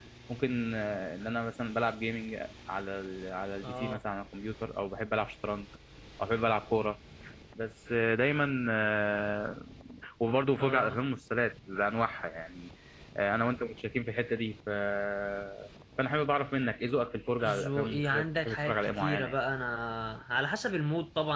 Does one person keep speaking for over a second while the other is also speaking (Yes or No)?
Yes